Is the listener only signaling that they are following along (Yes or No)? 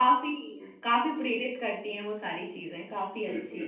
No